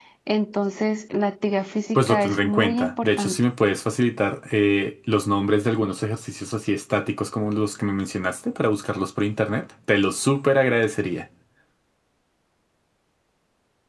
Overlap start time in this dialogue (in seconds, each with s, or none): 1.9 s